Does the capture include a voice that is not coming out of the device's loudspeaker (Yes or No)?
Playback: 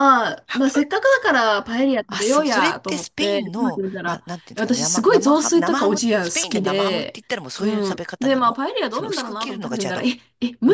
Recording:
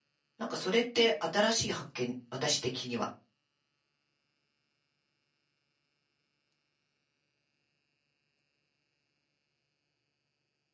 Yes